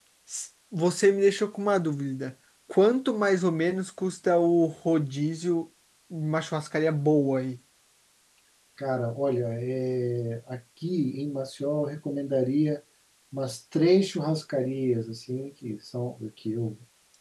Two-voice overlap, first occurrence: none

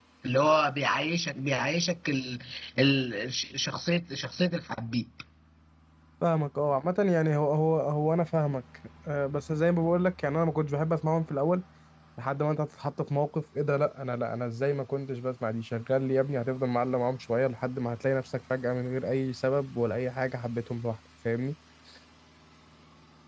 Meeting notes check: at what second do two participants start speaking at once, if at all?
none

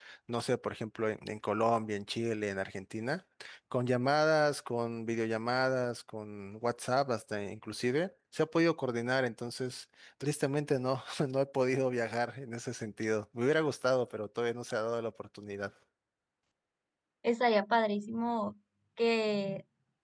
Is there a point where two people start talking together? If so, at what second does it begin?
none

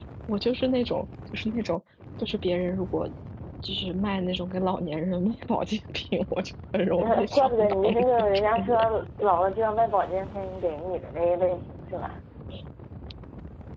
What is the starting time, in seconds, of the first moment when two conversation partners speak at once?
7.0 s

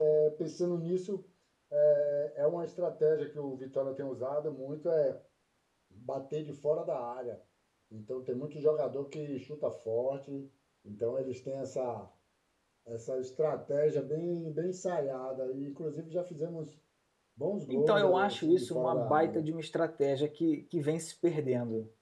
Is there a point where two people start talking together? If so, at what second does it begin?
17.7 s

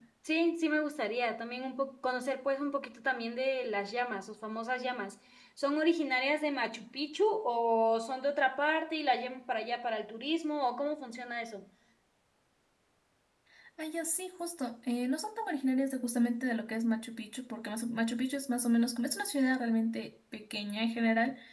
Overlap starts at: none

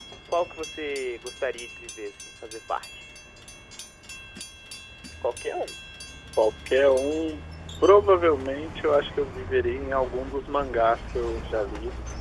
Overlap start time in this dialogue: none

